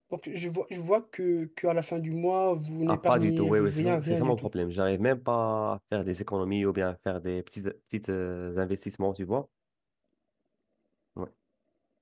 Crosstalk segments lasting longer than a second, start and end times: 2.9-4.5

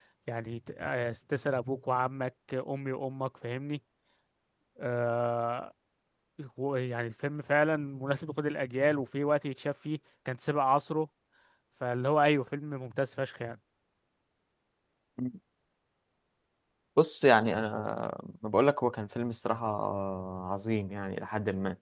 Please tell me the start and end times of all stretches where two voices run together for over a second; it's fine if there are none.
none

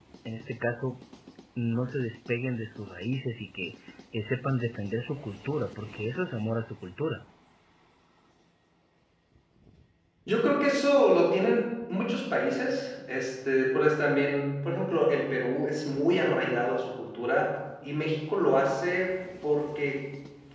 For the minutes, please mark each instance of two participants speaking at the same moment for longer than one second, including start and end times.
none

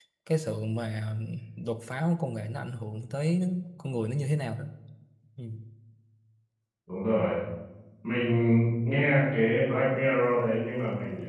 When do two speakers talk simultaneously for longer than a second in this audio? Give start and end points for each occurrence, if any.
none

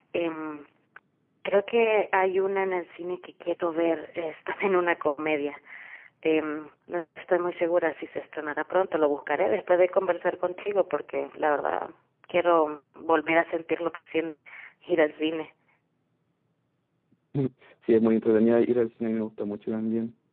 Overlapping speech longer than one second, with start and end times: none

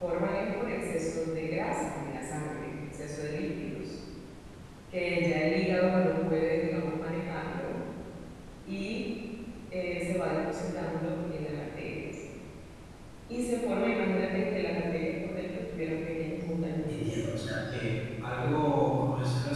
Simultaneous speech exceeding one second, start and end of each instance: none

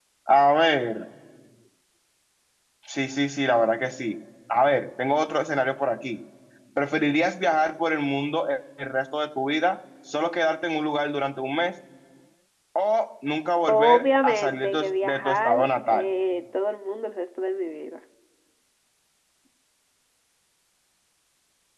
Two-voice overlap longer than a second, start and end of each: 13.6-16.0

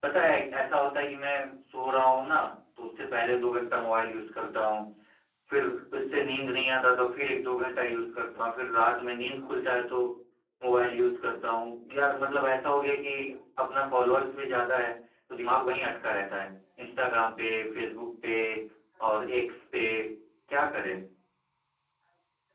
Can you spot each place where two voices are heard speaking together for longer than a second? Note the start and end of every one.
none

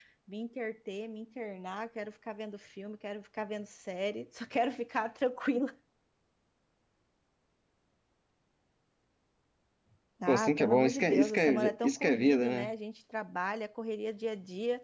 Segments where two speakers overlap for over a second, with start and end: 10.3-12.7

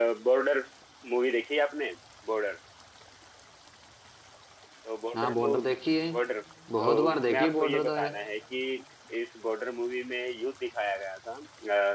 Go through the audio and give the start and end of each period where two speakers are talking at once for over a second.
6.8-8.1

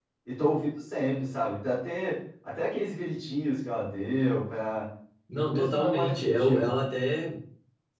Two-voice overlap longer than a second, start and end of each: 5.5-6.7

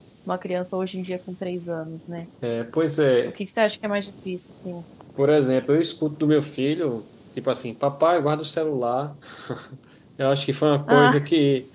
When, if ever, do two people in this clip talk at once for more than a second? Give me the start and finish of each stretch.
none

